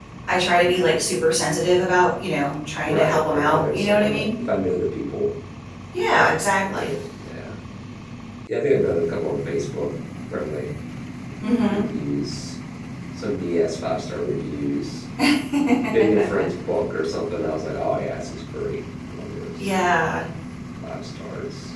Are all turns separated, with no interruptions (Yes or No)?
No